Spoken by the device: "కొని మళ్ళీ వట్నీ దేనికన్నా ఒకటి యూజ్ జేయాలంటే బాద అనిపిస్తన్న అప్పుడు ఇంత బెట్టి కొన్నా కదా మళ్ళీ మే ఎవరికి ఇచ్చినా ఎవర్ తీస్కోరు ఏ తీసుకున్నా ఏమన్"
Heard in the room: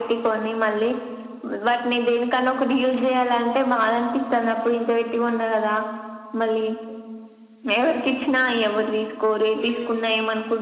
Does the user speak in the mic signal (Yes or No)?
Yes